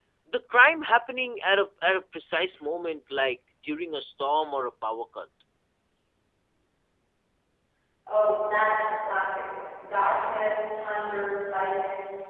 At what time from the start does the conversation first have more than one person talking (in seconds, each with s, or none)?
none